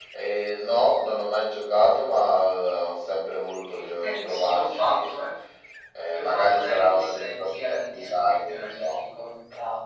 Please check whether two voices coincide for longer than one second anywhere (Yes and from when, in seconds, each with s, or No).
Yes, from 3.7 s